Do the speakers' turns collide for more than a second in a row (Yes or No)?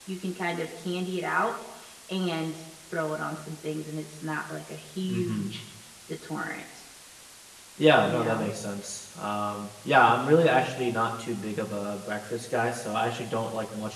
No